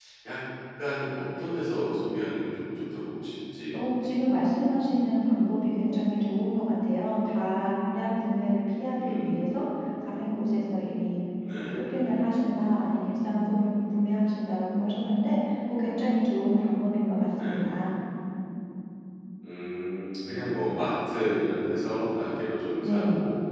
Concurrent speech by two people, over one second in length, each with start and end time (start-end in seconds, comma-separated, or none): none